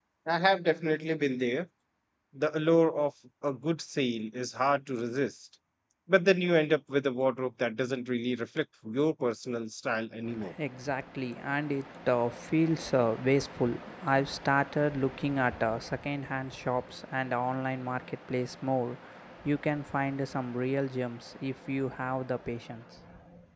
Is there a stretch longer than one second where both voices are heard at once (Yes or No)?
No